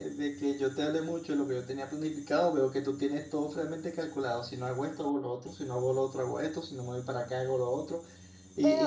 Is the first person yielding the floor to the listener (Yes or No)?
Yes